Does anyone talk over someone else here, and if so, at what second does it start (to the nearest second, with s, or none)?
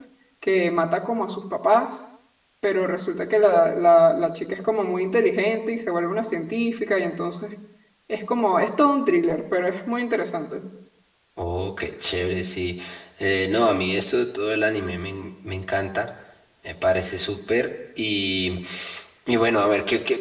none